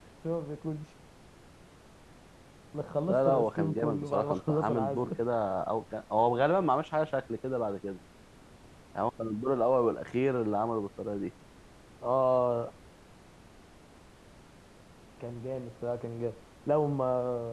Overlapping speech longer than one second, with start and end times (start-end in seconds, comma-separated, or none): 3.1-5.2